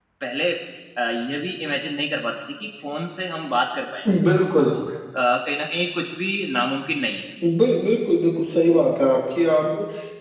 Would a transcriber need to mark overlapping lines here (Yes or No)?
No